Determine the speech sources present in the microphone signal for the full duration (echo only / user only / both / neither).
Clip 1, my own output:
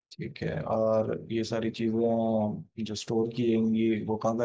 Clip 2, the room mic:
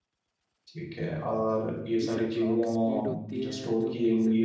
both